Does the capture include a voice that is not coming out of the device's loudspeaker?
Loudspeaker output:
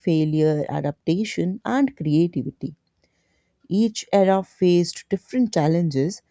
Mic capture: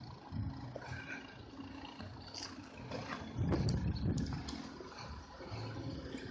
No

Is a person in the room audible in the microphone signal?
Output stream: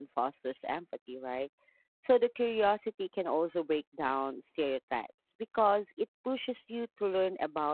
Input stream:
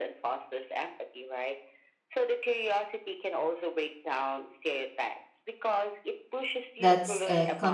Yes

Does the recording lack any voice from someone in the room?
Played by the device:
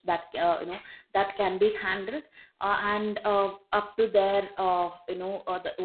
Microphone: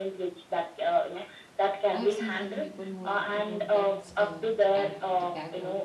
No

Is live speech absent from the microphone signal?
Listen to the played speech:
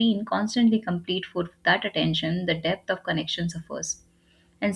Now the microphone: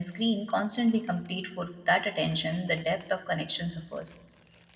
Yes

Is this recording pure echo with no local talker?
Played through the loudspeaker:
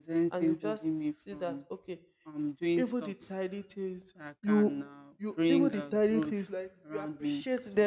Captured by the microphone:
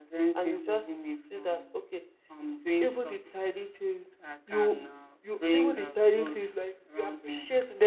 Yes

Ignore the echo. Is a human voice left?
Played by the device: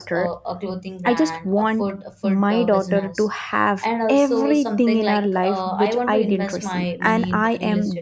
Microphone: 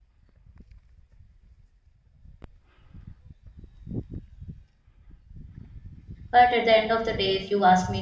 Yes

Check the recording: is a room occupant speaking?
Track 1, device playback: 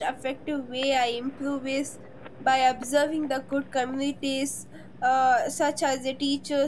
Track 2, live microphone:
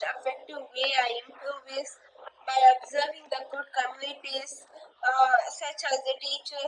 No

